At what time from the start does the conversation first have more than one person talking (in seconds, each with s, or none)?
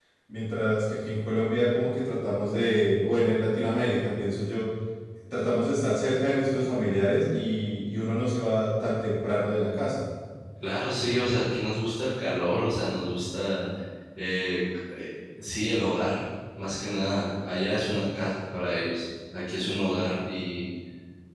none